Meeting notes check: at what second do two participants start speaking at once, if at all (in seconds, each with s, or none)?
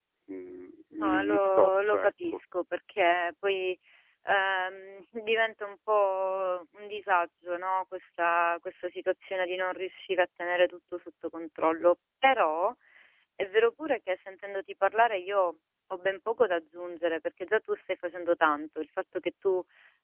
1.0 s